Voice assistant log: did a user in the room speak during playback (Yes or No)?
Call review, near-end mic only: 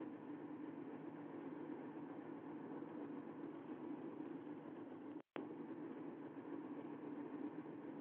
No